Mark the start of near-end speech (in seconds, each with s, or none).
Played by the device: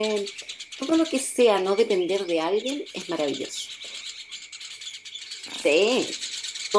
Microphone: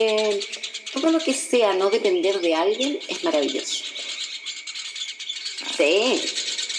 none